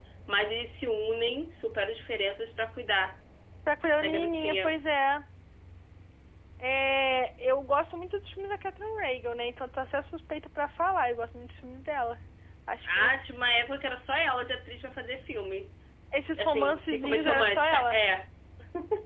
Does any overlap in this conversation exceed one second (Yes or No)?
Yes